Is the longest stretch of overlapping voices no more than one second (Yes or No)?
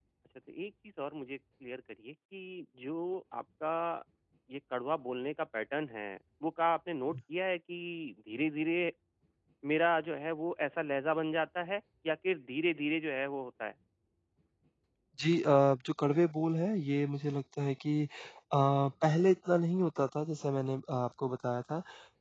Yes